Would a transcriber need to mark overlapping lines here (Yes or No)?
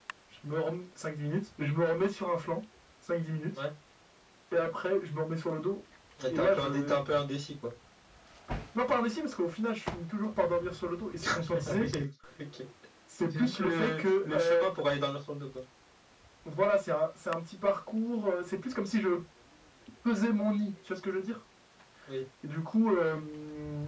Yes